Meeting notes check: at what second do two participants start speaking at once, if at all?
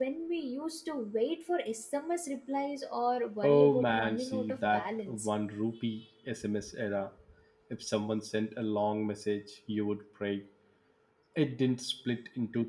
3.4 s

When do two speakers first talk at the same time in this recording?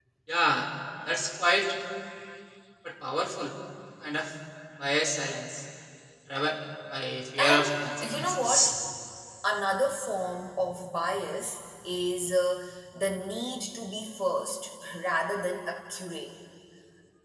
7.4 s

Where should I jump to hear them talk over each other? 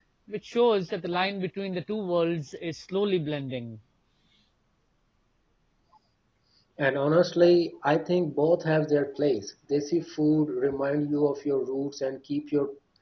none

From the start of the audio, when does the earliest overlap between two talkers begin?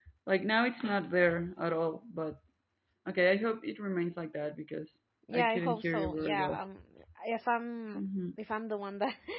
5.3 s

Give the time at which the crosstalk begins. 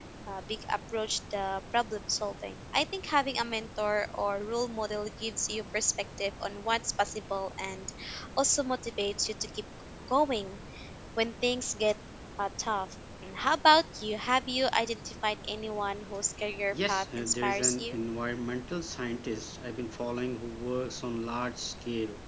16.7 s

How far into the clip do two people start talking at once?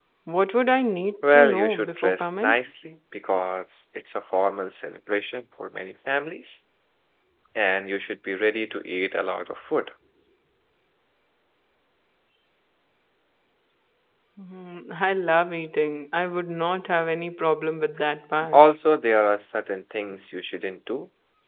1.2 s

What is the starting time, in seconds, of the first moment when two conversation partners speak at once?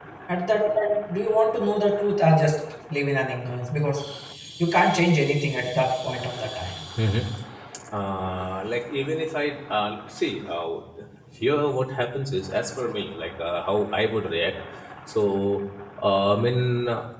none

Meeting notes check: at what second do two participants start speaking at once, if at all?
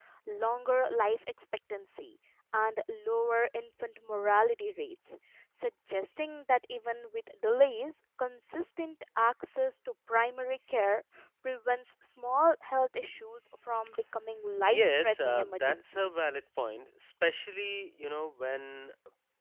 14.7 s

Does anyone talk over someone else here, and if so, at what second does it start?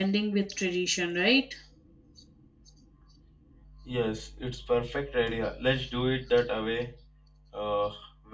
none

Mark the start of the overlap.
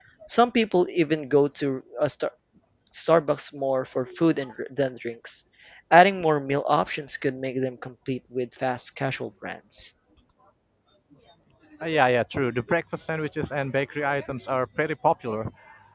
none

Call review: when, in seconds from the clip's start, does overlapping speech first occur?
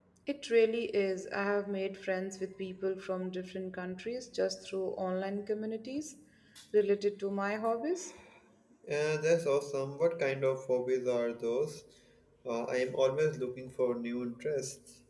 none

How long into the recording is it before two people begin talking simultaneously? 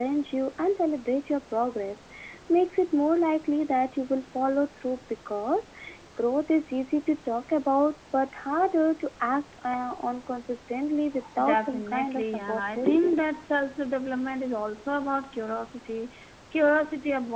11.4 s

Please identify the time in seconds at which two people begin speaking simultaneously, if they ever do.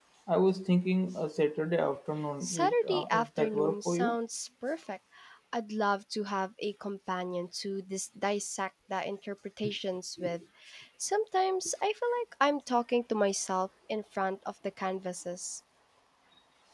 2.4 s

